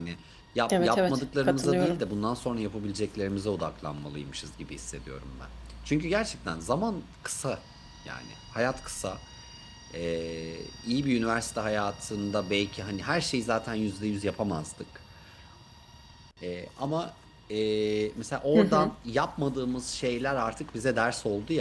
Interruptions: present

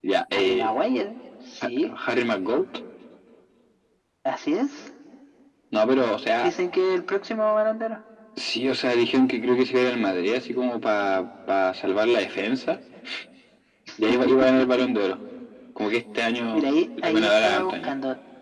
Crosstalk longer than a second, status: present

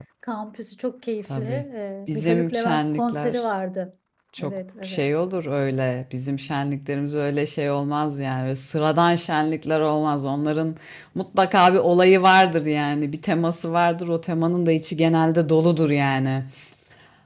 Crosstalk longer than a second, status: present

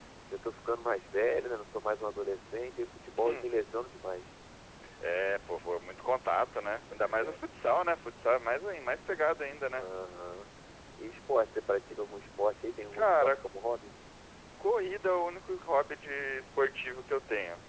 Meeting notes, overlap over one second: none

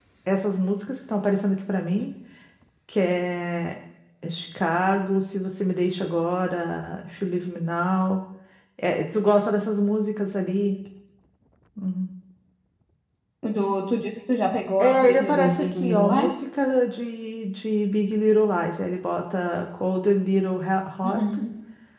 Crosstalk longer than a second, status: present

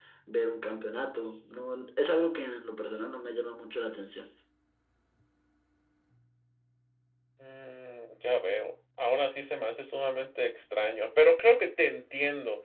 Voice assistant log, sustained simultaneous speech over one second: none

